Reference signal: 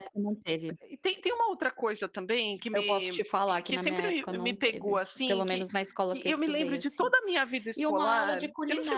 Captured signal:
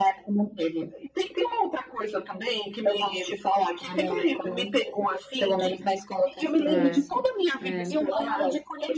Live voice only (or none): É, é.